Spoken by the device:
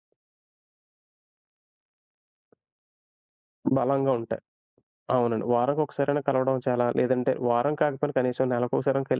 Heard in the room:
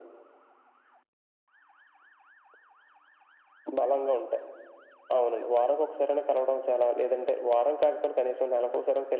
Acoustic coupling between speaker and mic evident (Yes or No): Yes